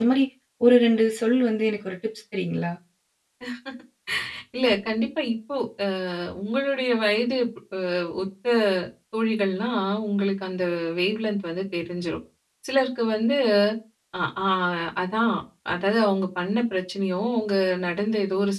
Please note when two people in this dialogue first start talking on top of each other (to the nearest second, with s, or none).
none